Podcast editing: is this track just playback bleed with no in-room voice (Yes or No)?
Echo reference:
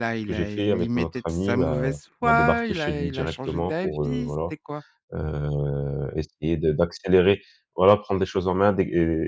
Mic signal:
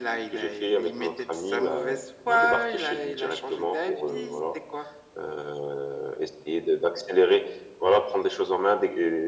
Yes